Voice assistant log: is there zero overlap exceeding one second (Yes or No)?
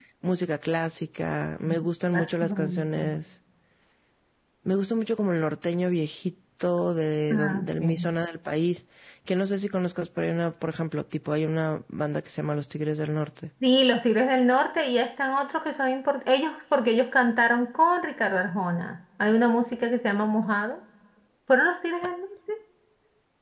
No